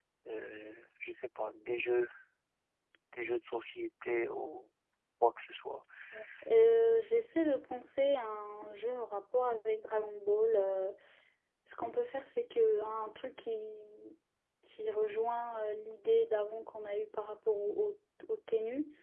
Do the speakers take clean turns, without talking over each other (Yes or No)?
Yes